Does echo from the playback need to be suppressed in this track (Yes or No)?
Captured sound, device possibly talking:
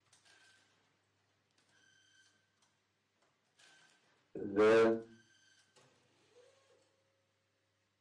No